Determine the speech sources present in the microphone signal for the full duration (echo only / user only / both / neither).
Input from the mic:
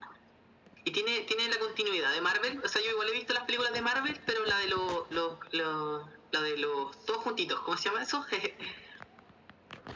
echo only